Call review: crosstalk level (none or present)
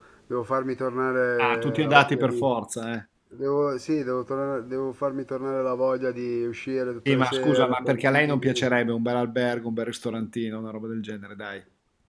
present